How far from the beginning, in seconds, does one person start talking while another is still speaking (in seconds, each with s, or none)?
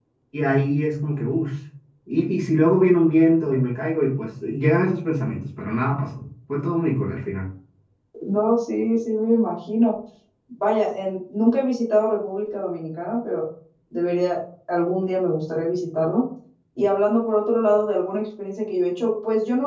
none